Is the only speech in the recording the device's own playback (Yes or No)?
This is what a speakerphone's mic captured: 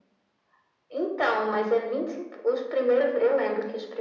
Yes